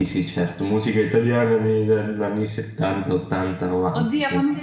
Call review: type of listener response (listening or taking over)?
taking over